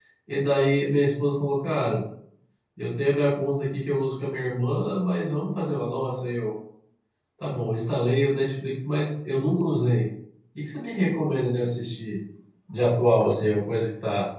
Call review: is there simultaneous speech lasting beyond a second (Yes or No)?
No